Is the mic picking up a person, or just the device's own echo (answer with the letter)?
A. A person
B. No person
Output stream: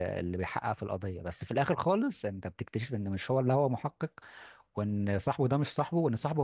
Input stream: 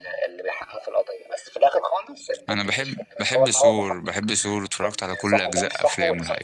A